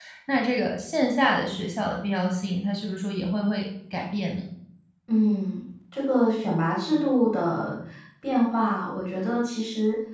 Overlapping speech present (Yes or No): No